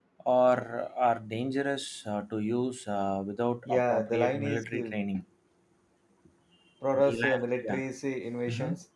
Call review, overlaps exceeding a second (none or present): present